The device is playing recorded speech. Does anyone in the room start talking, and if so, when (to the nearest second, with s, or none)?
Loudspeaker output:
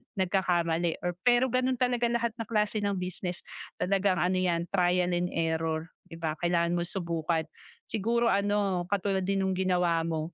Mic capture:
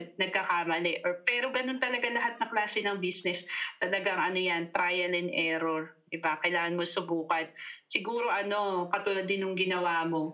none